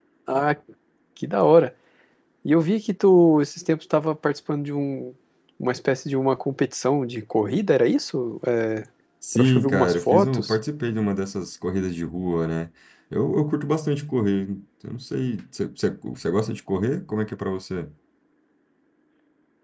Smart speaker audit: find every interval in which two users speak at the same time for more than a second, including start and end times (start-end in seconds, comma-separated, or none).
9.4-10.6